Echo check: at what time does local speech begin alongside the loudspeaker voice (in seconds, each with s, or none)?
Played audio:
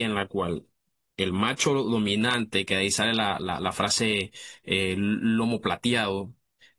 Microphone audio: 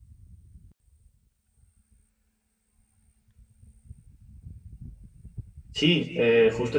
5.7 s